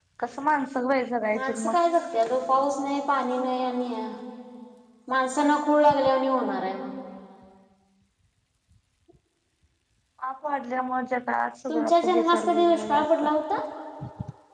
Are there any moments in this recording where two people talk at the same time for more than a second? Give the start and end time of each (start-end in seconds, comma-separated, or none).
11.7-13.1